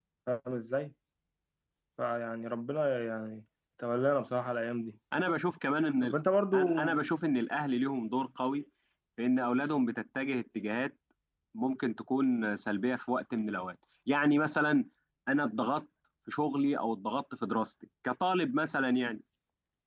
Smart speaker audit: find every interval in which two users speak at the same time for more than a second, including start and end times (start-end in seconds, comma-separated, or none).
none